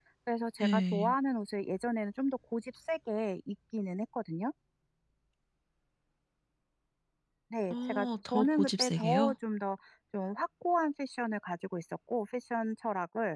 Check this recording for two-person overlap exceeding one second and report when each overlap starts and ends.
7.7-9.3

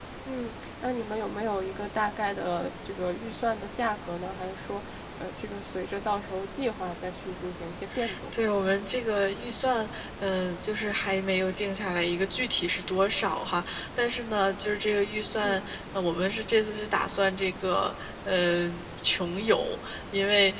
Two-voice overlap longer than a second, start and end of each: none

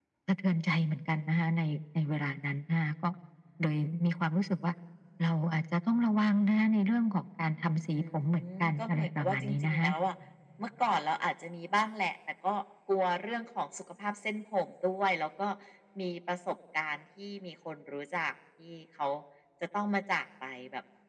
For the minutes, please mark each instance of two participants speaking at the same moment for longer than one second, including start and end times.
8.6-9.9

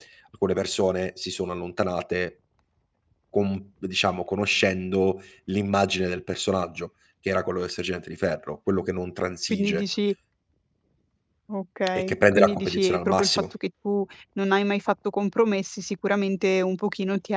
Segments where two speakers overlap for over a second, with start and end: 11.9-13.3

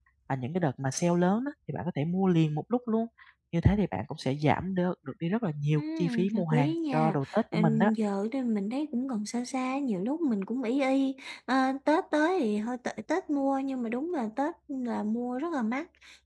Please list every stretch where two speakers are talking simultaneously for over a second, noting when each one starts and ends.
5.8-7.9

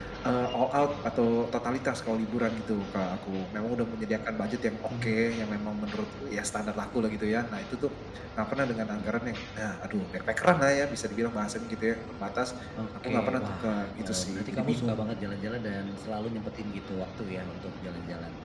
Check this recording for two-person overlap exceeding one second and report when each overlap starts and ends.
13.0-15.1

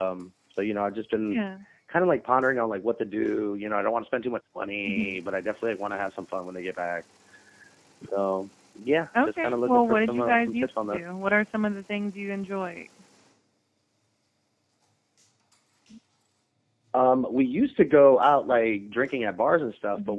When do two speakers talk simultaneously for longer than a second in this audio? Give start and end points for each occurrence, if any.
9.2-11.0

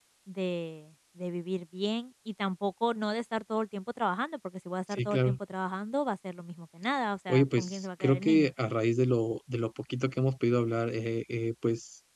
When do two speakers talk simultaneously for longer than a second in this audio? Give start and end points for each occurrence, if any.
7.3-8.5

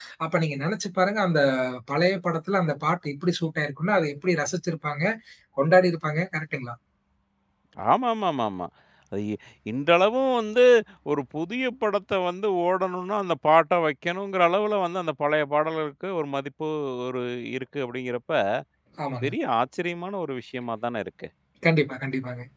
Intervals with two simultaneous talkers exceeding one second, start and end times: none

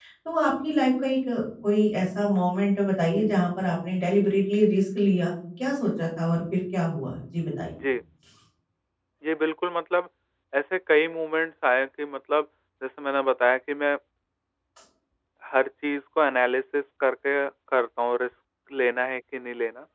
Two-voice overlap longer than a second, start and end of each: none

